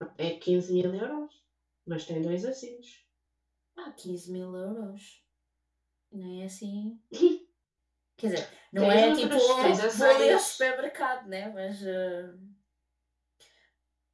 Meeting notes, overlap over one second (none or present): present